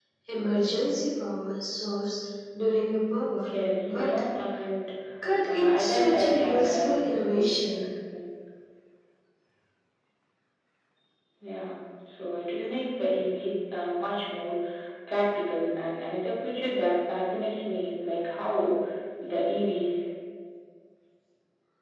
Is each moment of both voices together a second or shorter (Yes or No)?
No